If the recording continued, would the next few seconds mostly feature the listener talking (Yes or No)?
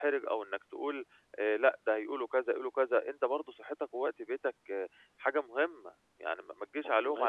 No